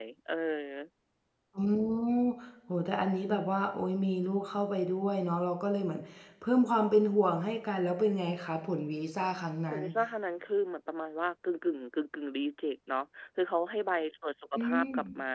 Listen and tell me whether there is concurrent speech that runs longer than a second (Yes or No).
No